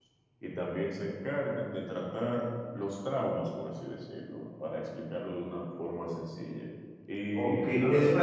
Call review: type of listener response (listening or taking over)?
taking over